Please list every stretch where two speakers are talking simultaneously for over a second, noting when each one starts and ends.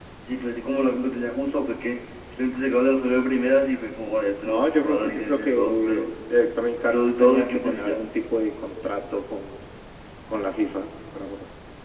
4.5-6.1, 6.8-8.0

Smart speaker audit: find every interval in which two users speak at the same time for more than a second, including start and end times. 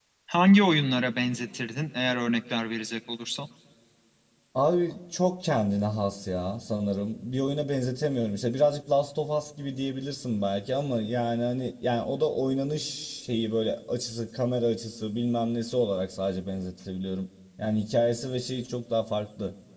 none

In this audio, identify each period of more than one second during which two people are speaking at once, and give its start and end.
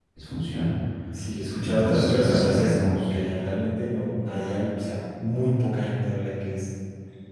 1.6-3.1

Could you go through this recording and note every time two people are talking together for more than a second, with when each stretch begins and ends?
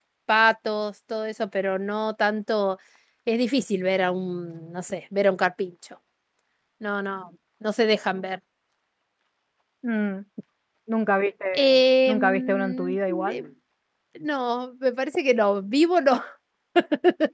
12.1-13.4

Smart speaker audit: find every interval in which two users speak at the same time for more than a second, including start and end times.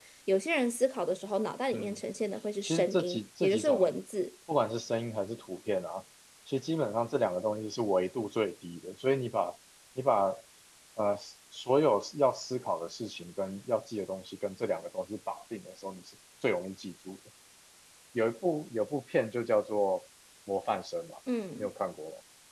2.6-3.9

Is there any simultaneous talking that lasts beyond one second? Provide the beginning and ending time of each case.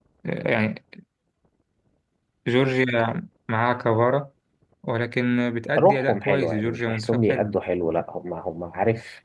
5.8-7.5

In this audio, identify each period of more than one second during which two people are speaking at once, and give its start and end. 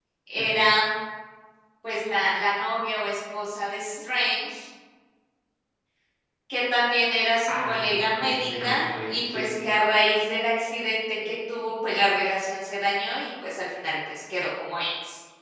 7.5-9.5

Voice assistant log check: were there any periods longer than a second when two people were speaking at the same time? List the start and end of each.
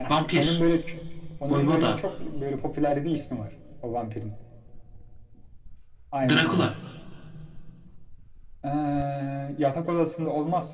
none

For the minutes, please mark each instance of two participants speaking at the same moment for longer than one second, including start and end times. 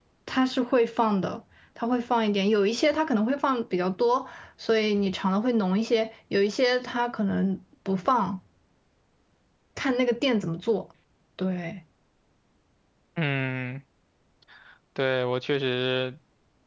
none

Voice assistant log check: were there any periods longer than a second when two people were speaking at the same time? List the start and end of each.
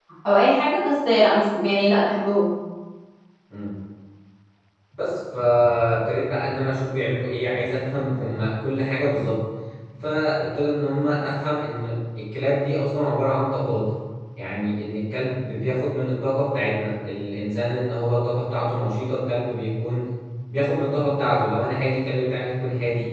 none

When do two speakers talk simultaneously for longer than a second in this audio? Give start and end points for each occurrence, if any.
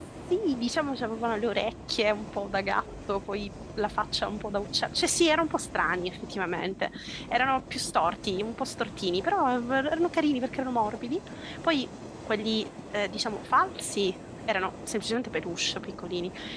none

